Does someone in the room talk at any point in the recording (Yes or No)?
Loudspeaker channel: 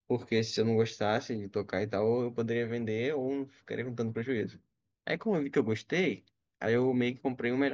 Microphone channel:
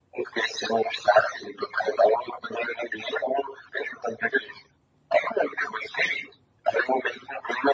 No